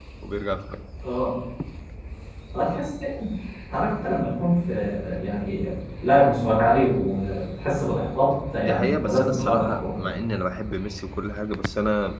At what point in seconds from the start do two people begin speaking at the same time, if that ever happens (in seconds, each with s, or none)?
8.6 s